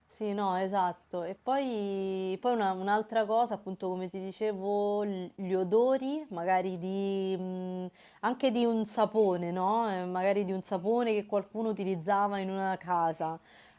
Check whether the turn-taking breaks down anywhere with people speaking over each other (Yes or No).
No